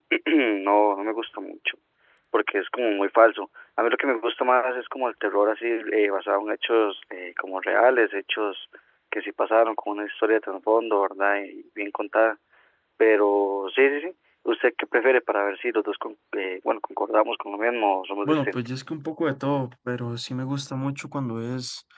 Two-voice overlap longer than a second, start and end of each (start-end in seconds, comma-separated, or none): none